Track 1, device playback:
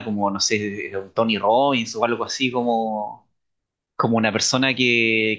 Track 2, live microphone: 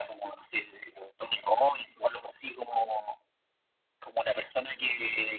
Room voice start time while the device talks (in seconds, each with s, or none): none